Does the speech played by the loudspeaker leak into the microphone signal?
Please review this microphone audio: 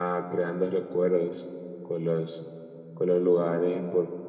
No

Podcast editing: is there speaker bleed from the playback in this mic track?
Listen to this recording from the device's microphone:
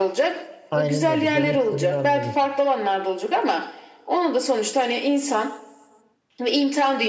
Yes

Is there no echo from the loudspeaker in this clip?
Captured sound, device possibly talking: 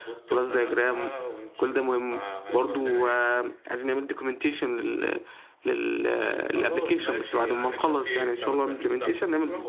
No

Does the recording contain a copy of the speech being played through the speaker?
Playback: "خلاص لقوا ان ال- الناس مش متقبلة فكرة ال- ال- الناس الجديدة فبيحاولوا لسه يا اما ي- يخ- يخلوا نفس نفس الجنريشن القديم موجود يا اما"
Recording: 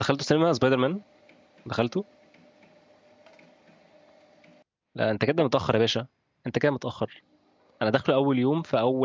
No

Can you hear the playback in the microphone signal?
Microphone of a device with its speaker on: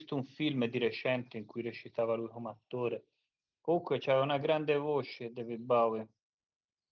No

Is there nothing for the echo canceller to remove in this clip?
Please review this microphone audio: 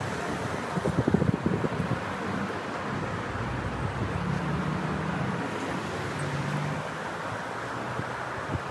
Yes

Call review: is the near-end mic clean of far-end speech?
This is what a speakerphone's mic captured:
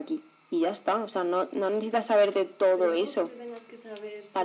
No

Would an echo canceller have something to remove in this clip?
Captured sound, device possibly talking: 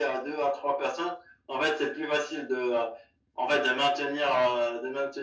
Yes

